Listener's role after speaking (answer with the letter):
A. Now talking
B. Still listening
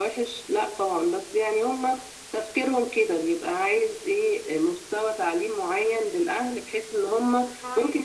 A